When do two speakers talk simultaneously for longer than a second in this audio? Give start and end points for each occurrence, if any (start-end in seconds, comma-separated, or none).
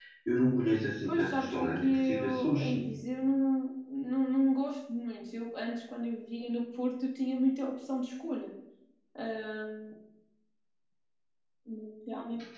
1.1-2.9